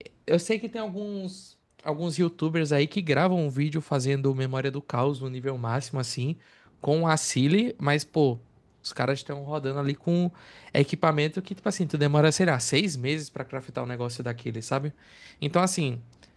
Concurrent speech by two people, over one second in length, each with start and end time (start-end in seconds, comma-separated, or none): none